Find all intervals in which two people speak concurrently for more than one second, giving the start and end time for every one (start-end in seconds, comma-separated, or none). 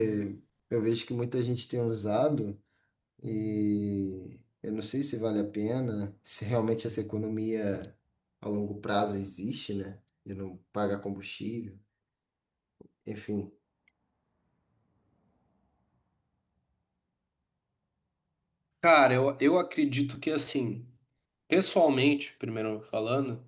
none